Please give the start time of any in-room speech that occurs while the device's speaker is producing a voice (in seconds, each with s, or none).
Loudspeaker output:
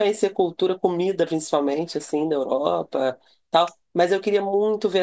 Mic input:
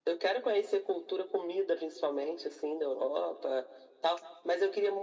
none